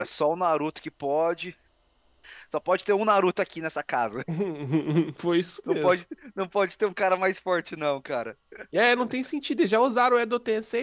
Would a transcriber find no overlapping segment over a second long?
Yes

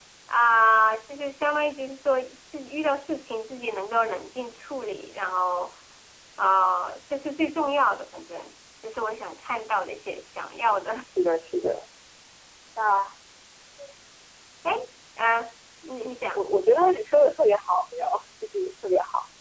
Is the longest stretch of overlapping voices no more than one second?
Yes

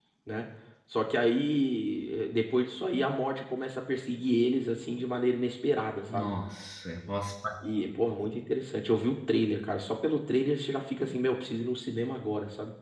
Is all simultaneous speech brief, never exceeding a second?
Yes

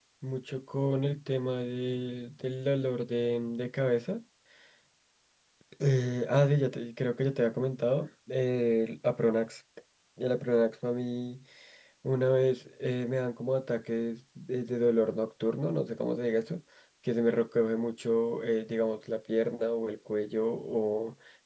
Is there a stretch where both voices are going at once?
No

